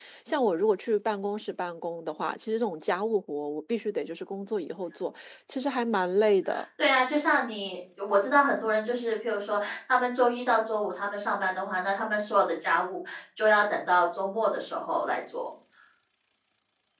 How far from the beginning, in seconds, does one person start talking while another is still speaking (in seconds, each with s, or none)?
none